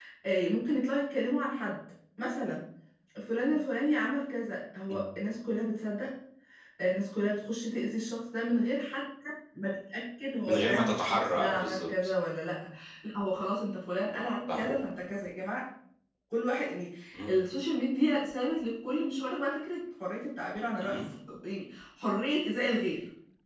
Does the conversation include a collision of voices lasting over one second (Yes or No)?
Yes